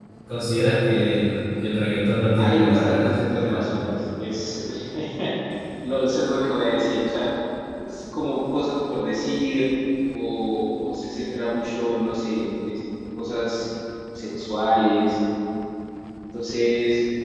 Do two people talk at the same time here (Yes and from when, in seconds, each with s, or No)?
Yes, from 2.4 s